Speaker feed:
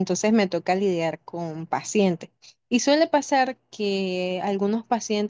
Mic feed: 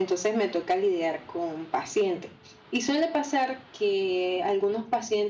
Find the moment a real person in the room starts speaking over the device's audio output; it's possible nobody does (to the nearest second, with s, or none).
none